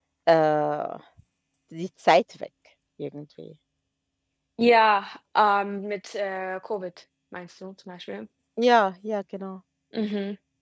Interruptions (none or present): none